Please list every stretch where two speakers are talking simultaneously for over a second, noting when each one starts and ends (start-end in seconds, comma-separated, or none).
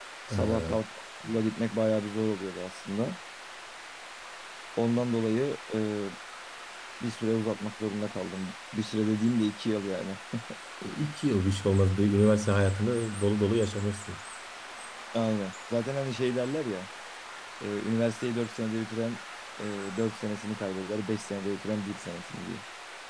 none